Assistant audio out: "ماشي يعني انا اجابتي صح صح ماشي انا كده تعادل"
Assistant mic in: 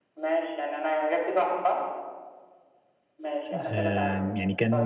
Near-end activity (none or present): present